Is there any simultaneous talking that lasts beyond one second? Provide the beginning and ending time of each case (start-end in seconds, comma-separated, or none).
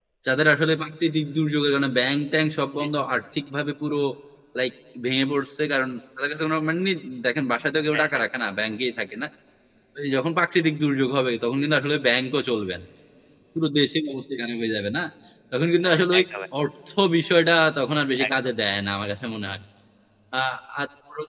none